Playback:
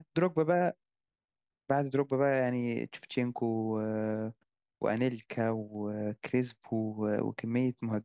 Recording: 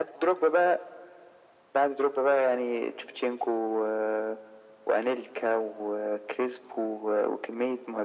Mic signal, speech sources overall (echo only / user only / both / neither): echo only